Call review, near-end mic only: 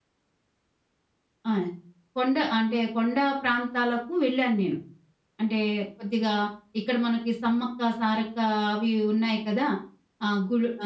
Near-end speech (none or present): present